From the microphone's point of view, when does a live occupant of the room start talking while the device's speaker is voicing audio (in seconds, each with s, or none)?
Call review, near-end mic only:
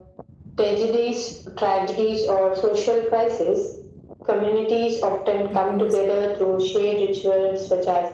5.5 s